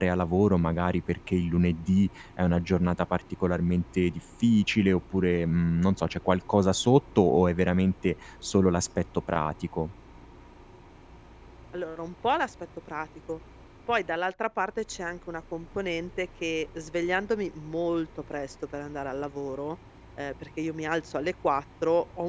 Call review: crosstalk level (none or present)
none